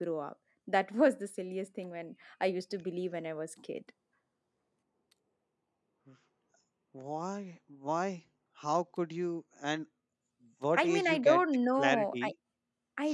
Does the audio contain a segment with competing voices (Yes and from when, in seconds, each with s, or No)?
Yes, from 10.7 s